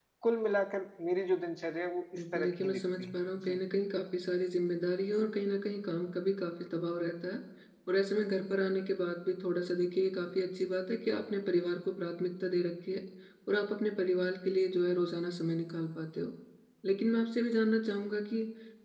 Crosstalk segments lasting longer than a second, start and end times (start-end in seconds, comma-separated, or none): 2.2-3.6